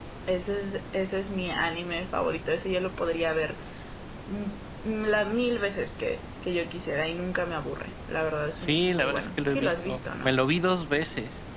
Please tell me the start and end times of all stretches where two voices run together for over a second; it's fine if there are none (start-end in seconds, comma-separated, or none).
8.6-10.3